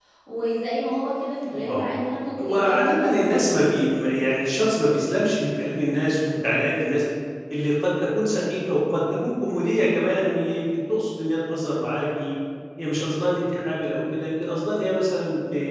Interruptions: present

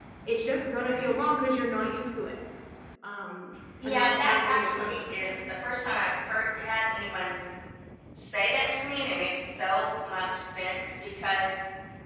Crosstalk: present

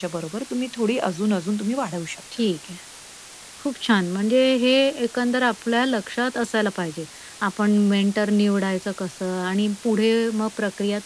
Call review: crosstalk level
none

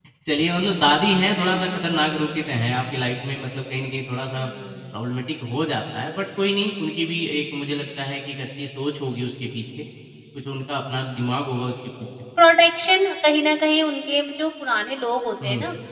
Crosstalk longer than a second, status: none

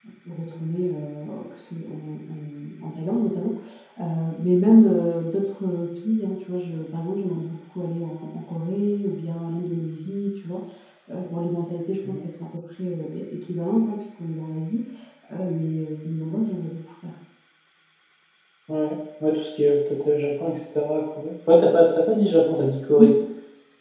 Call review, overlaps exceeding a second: none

